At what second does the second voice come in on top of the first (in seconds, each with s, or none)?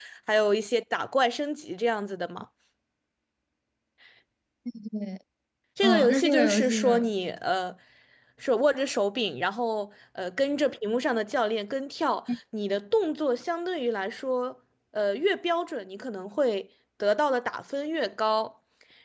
5.8 s